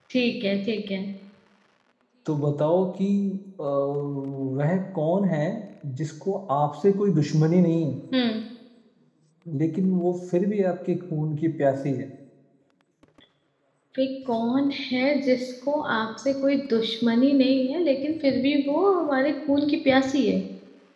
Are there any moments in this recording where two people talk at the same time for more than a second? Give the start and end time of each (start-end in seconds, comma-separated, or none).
none